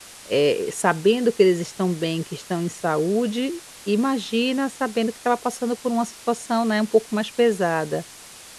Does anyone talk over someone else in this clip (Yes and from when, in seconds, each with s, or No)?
No